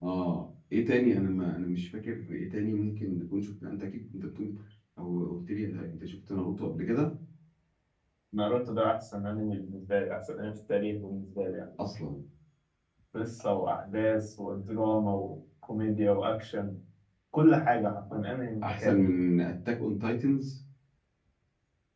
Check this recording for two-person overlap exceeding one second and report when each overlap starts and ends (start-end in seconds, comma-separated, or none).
none